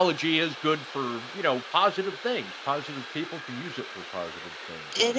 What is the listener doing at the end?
taking over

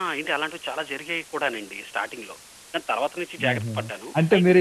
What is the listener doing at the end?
taking over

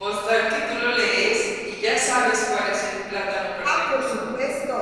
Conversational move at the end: taking over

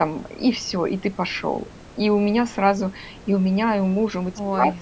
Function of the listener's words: listening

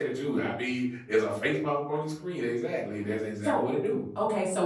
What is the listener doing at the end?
taking over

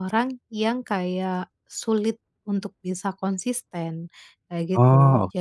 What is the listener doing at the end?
listening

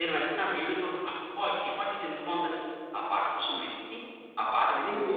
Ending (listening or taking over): listening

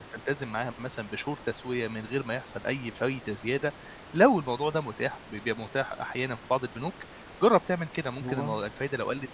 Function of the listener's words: listening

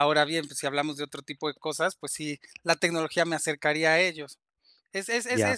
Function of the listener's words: listening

